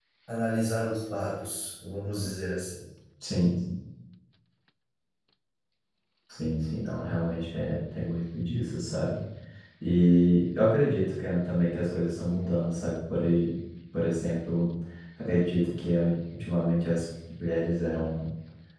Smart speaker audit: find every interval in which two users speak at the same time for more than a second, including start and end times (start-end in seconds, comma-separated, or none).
none